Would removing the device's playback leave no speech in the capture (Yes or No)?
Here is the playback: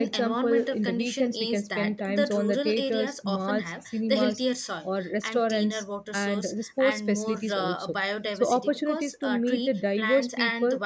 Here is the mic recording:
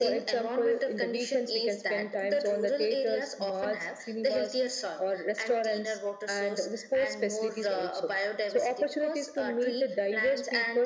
Yes